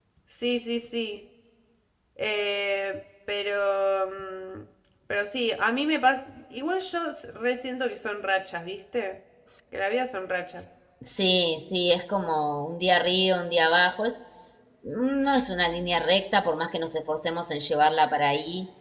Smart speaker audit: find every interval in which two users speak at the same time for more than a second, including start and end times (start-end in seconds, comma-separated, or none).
none